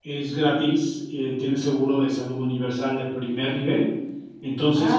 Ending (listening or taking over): listening